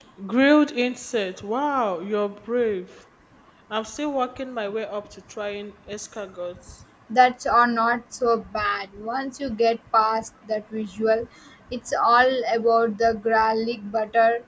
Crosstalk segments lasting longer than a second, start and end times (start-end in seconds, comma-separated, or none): none